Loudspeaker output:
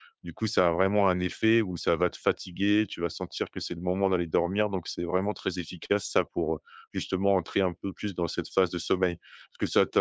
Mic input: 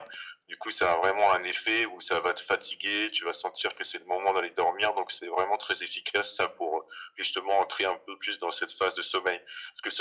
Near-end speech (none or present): none